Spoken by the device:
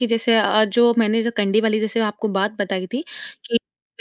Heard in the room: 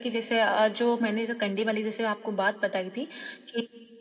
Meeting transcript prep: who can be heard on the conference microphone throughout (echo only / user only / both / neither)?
echo only